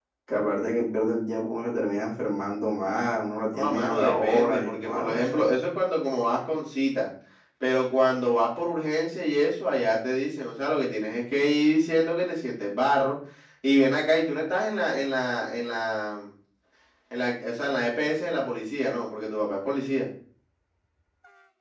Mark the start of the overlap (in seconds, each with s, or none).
3.5 s